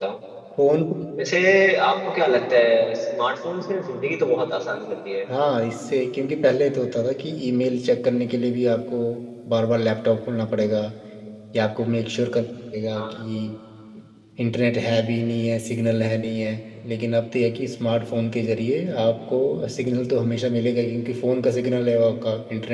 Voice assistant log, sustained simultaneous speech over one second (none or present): none